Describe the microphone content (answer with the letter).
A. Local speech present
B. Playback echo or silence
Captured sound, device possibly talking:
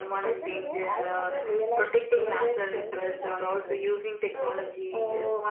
B